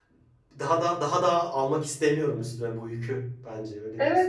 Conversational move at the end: taking over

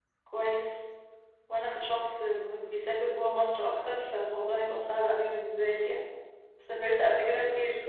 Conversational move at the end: listening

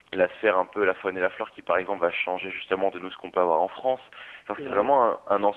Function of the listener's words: listening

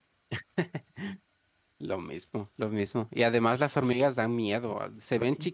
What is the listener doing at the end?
listening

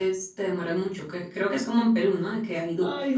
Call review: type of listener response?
listening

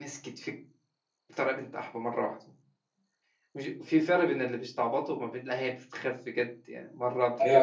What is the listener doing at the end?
taking over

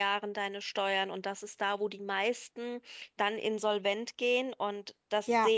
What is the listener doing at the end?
taking over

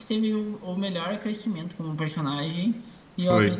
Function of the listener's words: listening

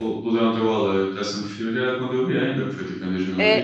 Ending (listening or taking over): taking over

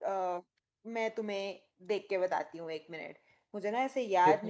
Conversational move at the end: listening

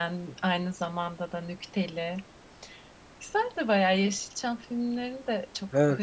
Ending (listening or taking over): taking over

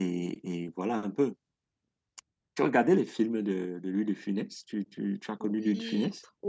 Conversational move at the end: taking over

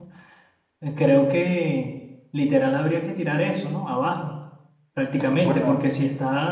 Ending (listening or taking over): listening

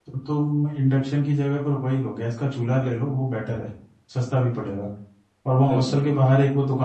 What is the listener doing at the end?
listening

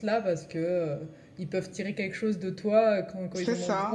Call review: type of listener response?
listening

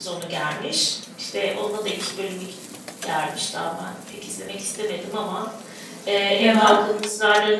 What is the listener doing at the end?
listening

